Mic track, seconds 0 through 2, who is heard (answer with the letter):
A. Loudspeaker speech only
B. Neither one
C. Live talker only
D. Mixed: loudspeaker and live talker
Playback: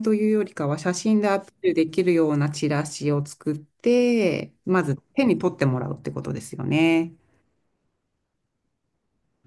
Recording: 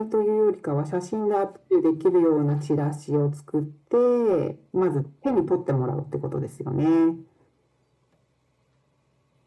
A